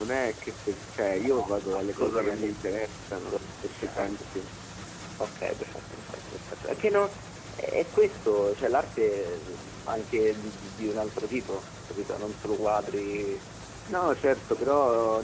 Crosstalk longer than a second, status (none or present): present